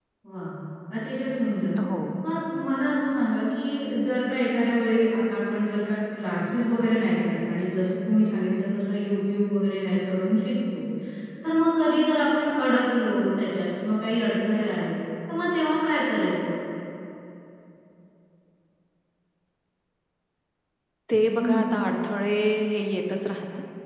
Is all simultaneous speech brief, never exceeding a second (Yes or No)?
Yes